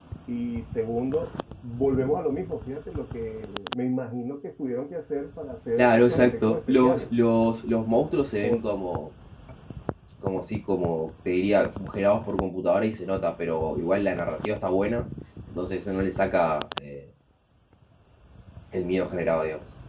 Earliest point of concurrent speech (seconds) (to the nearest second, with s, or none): 6 s